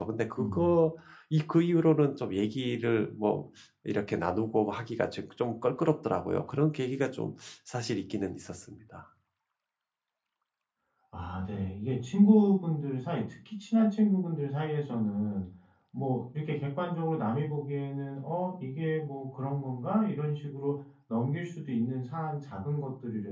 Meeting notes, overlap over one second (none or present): none